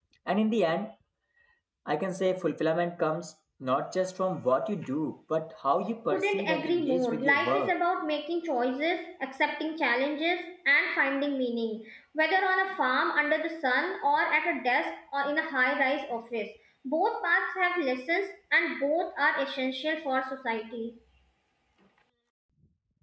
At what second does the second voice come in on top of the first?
6.1 s

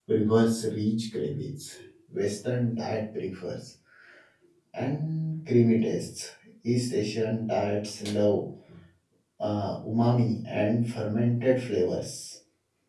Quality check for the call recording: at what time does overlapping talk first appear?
none

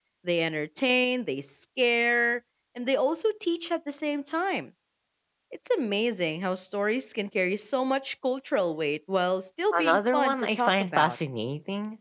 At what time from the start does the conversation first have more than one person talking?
9.7 s

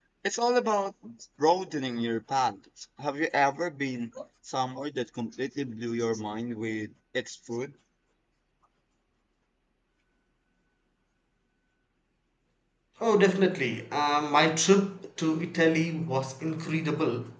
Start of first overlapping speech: none

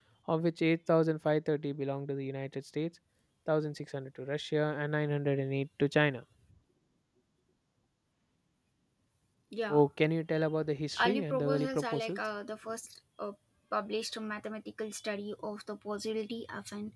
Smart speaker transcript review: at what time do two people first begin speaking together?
11.0 s

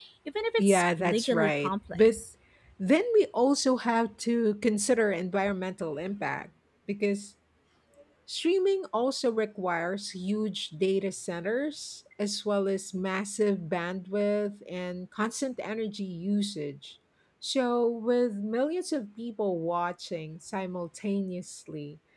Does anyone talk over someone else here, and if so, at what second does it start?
0.6 s

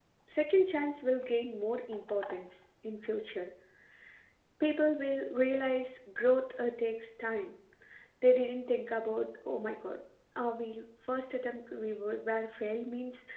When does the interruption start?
none

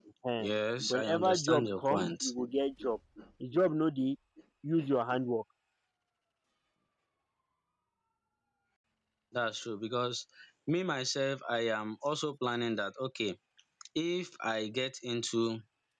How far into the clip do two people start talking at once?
0.9 s

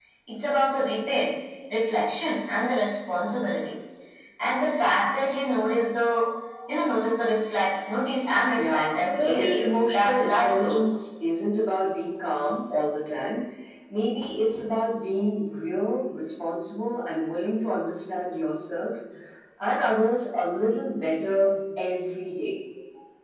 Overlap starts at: 8.5 s

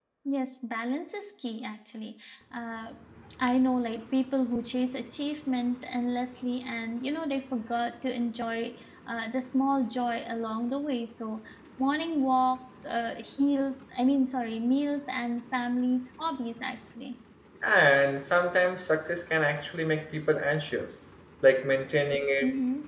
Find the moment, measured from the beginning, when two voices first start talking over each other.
none

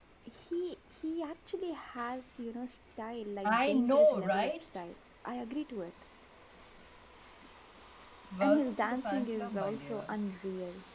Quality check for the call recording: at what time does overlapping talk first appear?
3.4 s

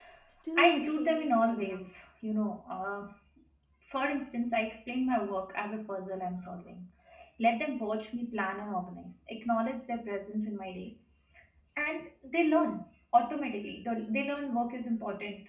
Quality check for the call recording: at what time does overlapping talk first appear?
0.6 s

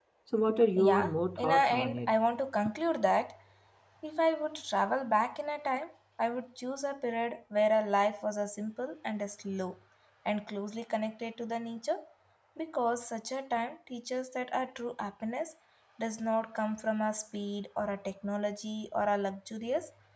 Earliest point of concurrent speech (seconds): 0.8 s

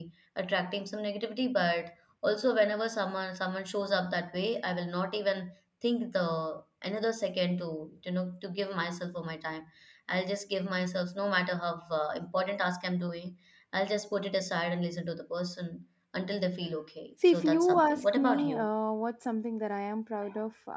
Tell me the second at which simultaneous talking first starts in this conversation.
17.2 s

